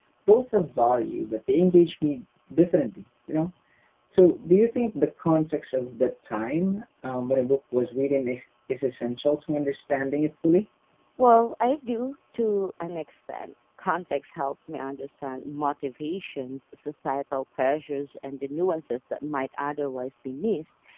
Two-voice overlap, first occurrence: none

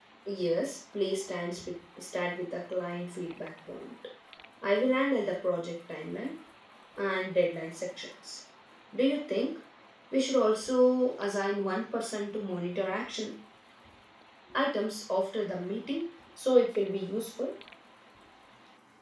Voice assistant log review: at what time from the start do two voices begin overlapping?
none

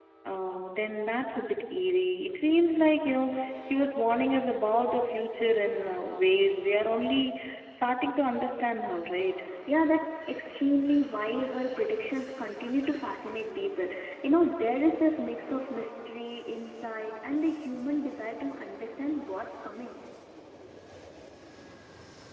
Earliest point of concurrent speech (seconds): none

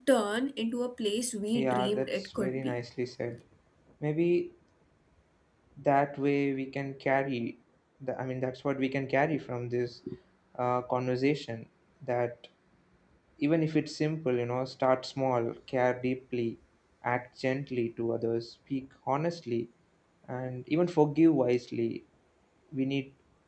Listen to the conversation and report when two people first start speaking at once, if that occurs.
1.5 s

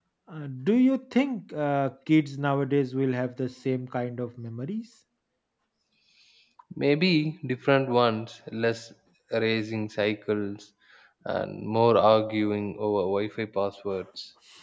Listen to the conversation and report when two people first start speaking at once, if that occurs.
none

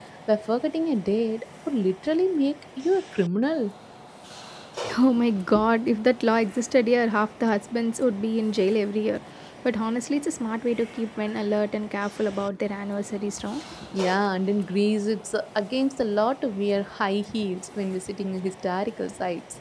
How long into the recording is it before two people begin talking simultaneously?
none

